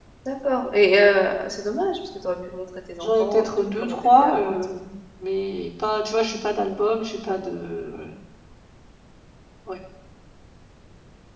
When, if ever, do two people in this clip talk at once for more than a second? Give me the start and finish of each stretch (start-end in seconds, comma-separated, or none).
3.0-4.6